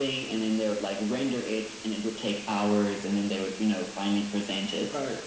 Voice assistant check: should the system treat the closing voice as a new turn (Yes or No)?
Yes